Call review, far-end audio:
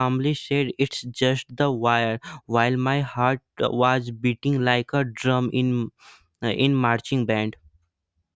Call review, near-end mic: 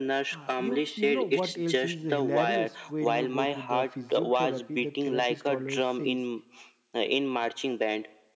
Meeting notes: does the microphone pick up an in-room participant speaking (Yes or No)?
Yes